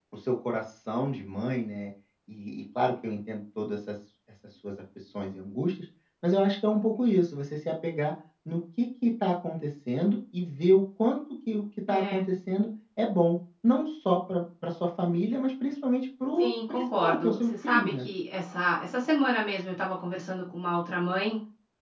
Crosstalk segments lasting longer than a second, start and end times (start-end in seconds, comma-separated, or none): 16.4-18.1